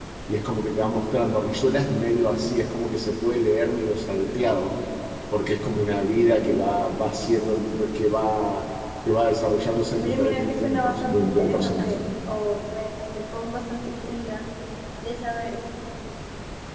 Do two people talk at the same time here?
Yes, from 10.0 s

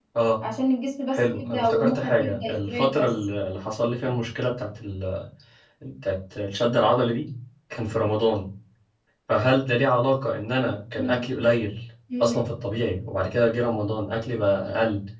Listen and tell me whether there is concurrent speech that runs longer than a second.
Yes, from 1.1 s

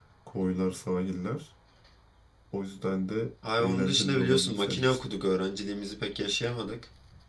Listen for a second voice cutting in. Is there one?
Yes, from 3.4 s

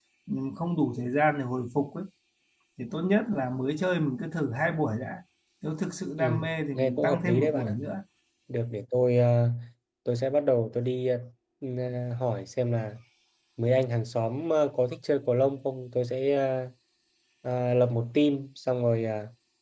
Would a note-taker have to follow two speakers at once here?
Yes, from 6.2 s

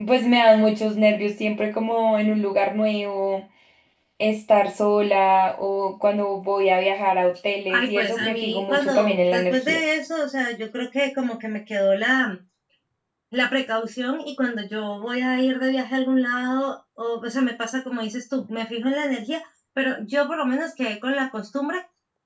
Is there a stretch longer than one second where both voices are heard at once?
Yes, from 7.7 s

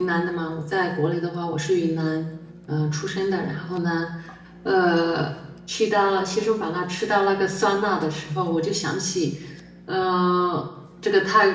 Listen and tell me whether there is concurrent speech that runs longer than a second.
No

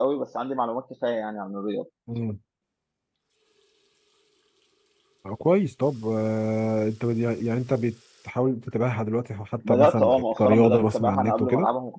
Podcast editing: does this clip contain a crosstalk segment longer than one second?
Yes, from 9.6 s

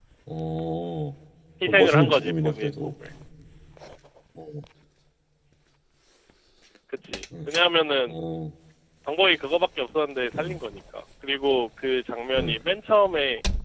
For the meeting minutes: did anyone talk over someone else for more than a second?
Yes, from 1.7 s

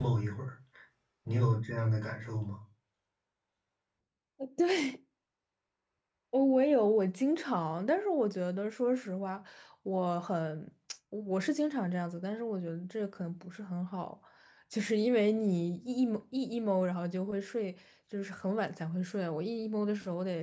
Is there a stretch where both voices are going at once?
No

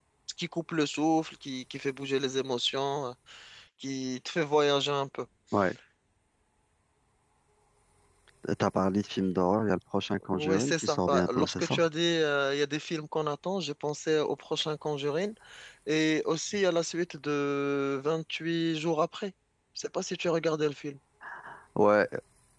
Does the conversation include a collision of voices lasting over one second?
Yes, from 10.2 s

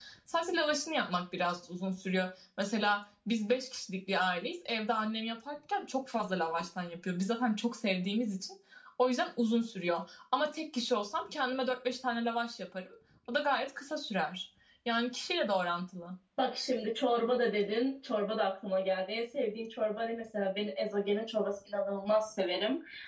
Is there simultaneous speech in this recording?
No

